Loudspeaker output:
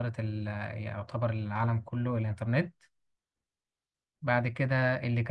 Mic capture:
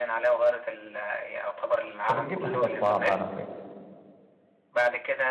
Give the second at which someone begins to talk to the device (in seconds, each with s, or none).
2.0 s